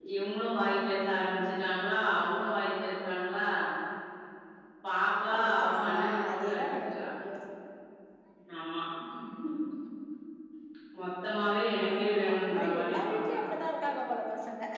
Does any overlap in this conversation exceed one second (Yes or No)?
Yes